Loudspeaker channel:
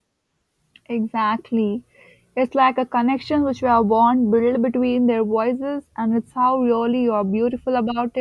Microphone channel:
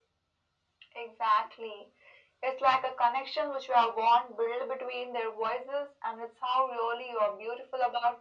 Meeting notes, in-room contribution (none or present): none